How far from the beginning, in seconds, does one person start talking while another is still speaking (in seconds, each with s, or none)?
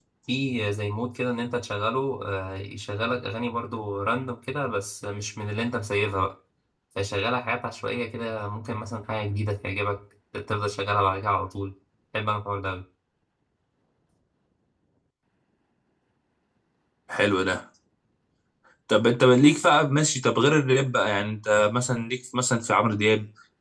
none